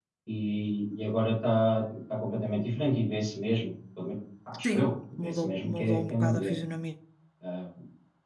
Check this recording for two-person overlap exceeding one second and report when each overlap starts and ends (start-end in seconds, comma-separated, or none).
4.6-6.5